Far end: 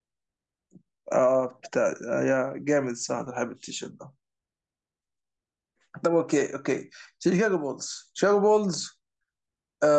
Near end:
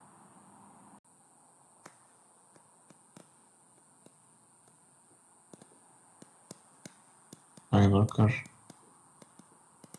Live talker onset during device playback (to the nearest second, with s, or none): 8 s